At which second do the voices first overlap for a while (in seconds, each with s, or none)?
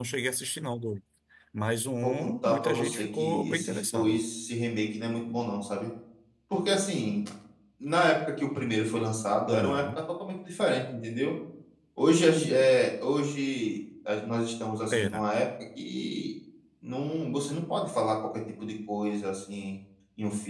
2.0 s